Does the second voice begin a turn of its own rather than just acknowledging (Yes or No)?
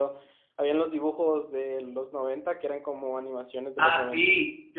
Yes